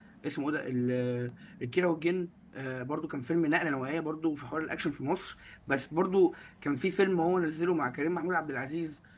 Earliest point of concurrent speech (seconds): none

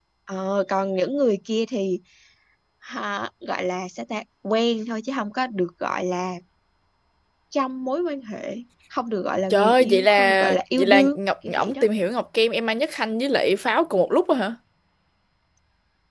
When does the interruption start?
9.5 s

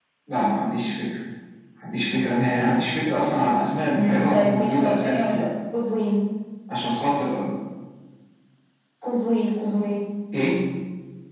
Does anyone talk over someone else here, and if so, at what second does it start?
3.9 s

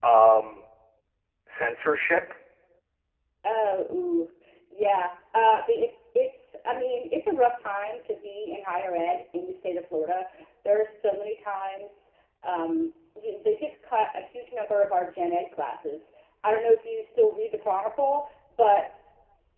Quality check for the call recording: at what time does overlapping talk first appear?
none

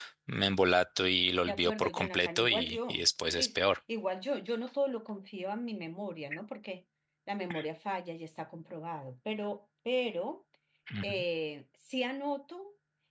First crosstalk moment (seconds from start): 1.5 s

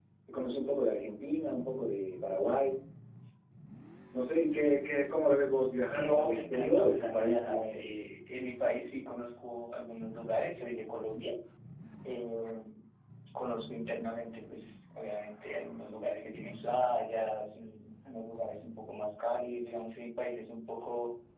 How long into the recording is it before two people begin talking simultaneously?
5.9 s

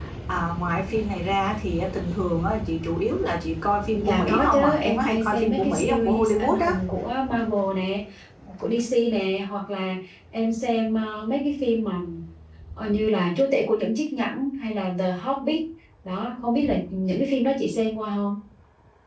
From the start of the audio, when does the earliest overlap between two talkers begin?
3.9 s

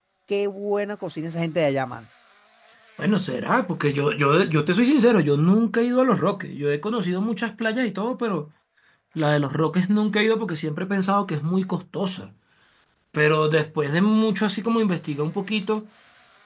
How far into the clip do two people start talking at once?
none

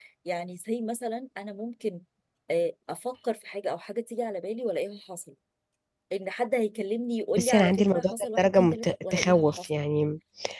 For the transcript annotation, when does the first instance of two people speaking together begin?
7.4 s

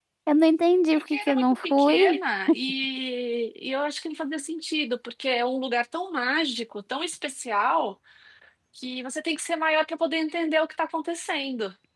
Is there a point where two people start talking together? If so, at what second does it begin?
1.0 s

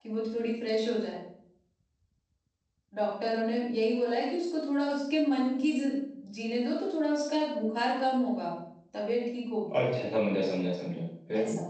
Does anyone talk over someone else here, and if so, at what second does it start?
none

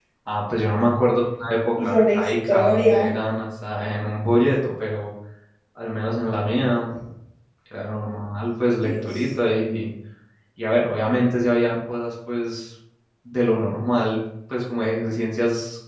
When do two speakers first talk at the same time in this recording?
1.8 s

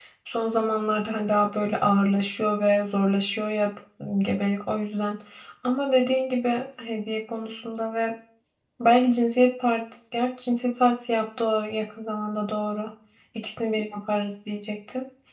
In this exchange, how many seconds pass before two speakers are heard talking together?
none

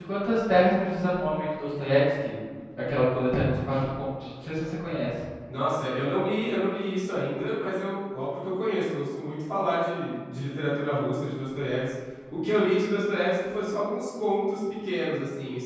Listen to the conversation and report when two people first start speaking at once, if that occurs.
none

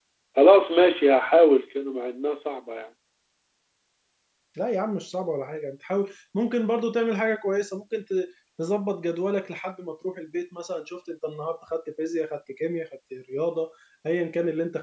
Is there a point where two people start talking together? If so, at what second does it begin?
none

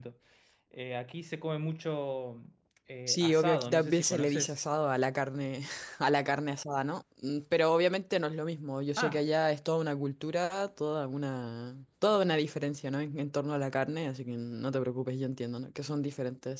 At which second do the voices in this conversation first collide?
3.1 s

